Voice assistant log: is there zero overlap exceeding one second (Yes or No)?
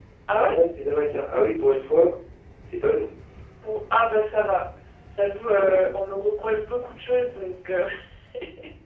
Yes